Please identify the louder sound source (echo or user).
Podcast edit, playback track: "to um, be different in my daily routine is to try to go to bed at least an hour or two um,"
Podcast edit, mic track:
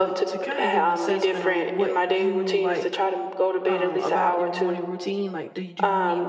echo